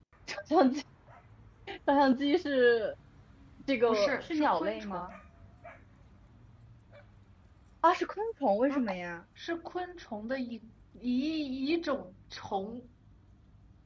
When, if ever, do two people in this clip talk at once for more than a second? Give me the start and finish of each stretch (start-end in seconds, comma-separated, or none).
3.9-5.1